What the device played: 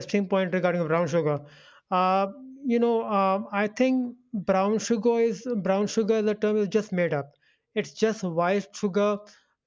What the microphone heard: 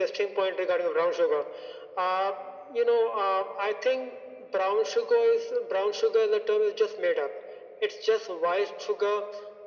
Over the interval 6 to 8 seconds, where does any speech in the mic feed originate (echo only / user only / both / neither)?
echo only